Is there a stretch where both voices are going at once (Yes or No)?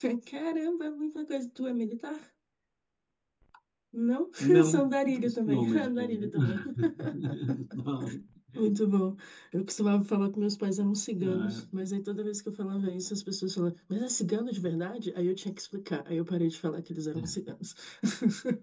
Yes